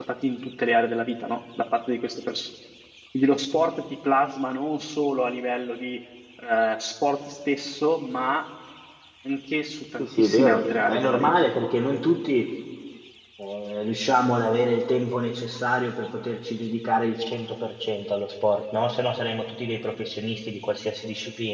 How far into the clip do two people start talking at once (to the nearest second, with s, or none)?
10 s